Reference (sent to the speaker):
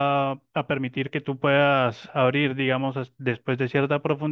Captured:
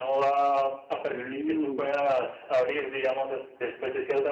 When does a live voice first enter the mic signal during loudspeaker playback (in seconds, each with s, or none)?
1.1 s